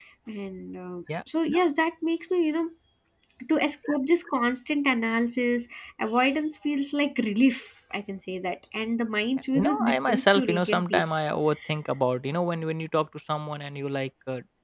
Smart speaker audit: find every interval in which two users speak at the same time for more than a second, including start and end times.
9.6-11.3

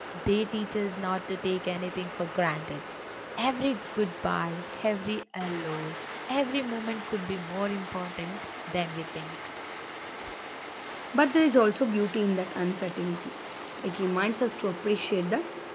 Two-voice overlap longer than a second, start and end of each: none

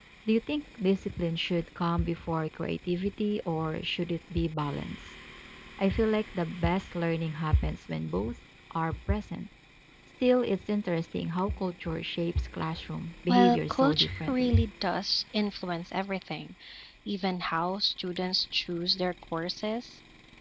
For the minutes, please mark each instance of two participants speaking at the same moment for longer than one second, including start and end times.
13.3-14.6

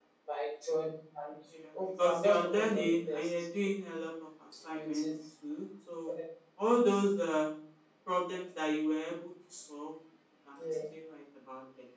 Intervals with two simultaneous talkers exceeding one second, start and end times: 2.0-3.3

